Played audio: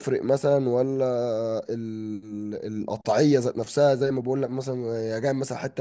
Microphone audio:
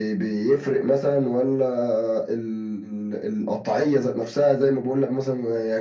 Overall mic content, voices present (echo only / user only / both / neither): echo only